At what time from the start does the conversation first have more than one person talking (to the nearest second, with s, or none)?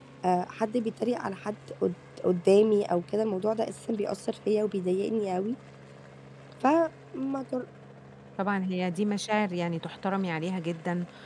none